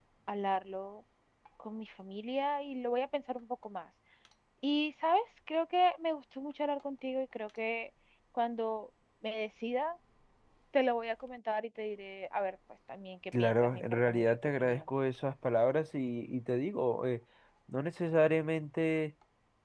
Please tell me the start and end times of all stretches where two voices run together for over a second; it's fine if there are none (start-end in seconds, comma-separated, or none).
13.4-14.8